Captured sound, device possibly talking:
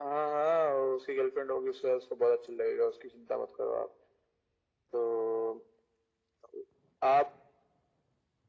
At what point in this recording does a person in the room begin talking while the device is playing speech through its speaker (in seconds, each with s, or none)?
none